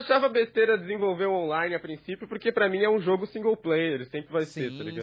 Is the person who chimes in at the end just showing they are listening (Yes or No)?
No